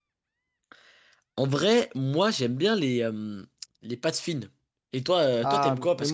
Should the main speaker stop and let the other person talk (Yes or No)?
Yes